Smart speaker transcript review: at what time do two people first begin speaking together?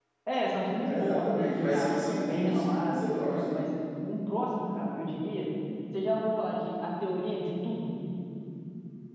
0.8 s

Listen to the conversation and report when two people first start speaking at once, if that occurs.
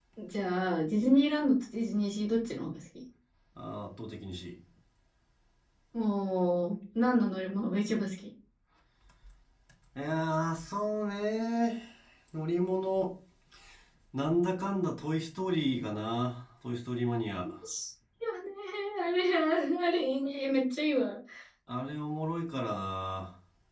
none

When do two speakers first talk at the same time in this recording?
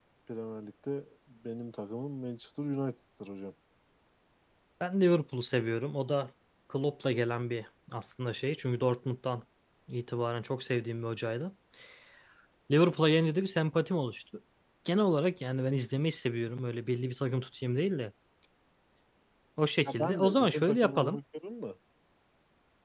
19.9 s

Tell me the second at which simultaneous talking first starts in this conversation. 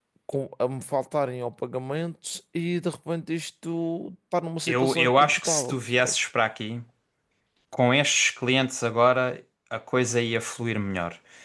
4.7 s

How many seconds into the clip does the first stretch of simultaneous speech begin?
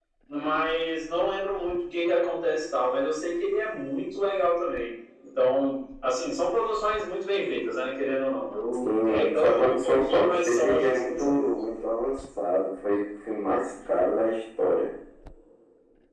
8.8 s

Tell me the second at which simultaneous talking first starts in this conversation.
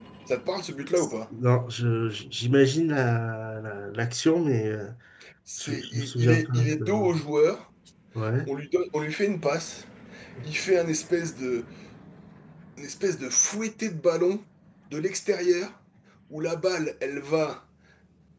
5.6 s

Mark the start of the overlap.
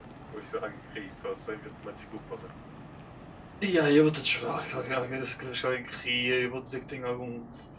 none

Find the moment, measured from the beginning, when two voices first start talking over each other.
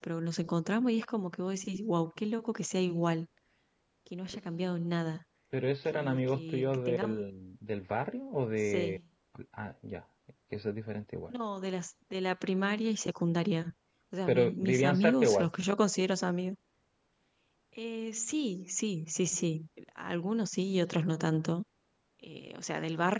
5.9 s

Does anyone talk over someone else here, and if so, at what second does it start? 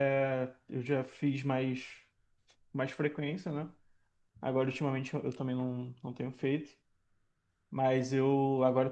none

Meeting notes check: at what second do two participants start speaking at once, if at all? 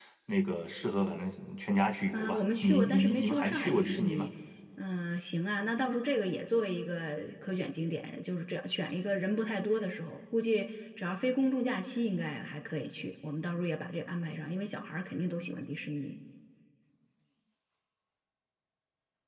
2.1 s

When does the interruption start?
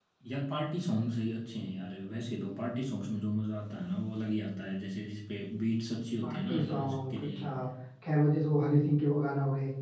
6.2 s

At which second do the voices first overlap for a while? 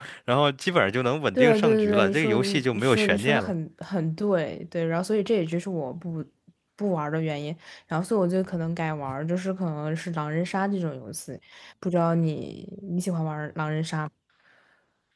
1.3 s

